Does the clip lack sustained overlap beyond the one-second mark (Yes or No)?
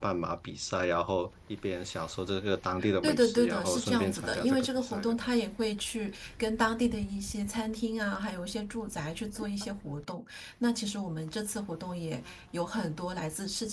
No